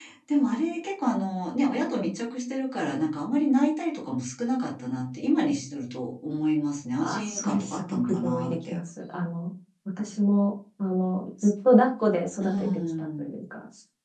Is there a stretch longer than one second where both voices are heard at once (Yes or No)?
Yes